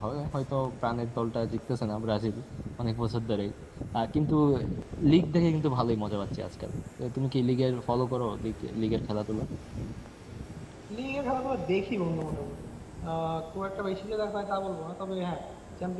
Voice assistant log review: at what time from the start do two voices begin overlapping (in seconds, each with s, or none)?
none